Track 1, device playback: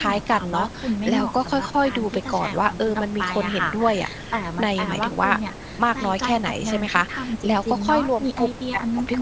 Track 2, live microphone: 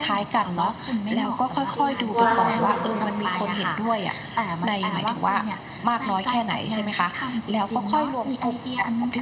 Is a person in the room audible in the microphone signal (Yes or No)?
Yes